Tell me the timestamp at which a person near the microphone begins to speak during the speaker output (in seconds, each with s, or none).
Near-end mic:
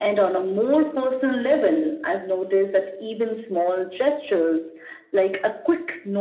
none